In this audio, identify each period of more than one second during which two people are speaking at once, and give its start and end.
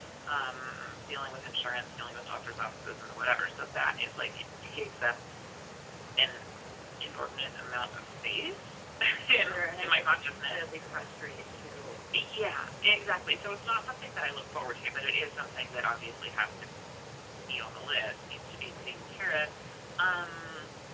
9.3-10.6

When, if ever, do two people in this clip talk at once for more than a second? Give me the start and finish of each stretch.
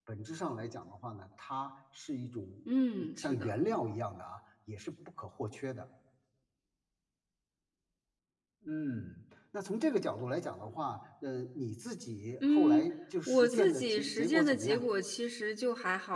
13.3-14.9

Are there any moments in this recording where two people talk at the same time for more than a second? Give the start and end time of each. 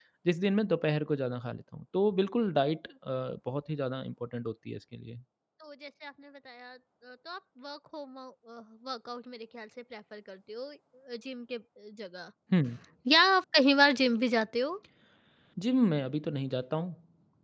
none

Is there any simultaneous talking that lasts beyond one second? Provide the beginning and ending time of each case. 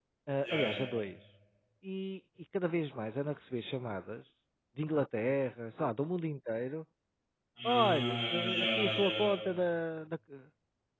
7.7-9.3

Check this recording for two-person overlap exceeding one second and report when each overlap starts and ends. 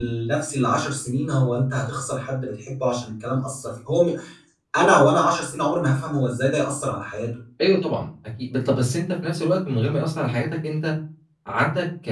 none

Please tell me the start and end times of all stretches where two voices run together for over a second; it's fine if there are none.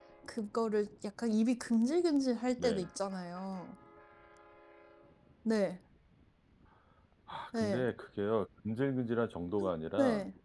none

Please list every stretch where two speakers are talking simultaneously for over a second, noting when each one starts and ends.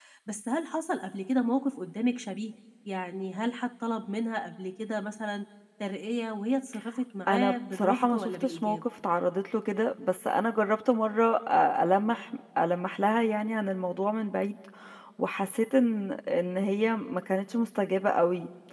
7.3-8.8

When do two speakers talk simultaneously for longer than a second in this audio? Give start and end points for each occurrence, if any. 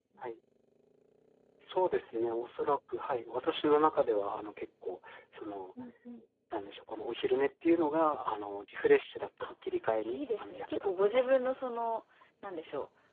10.0-11.5

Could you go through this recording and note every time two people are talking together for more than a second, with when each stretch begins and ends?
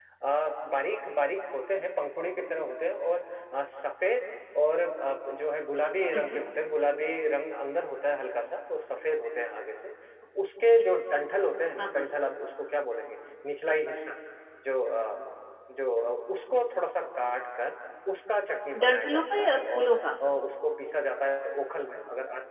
18.8-20.1

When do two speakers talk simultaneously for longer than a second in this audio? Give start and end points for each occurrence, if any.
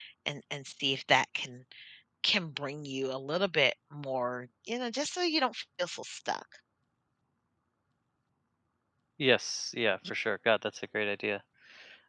none

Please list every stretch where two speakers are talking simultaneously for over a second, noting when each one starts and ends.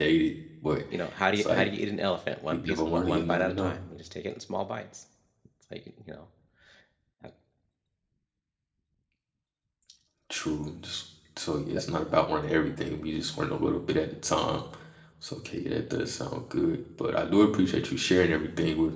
2.5-3.8

